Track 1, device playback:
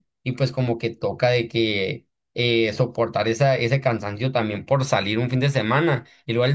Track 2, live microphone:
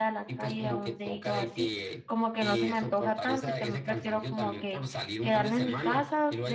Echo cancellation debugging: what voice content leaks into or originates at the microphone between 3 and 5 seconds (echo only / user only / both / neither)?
both